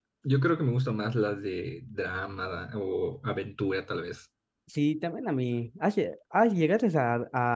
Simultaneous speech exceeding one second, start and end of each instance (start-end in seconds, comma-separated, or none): none